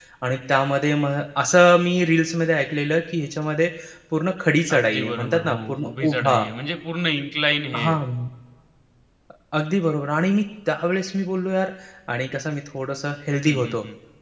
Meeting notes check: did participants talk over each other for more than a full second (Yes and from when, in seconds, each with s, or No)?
Yes, from 4.8 s